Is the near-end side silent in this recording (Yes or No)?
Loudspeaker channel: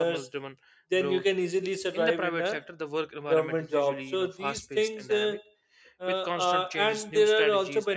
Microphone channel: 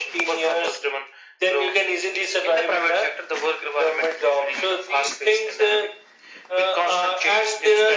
Yes